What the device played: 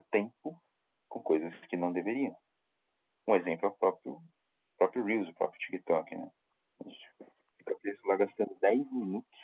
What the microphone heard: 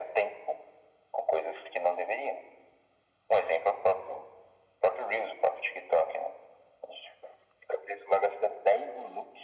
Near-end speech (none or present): none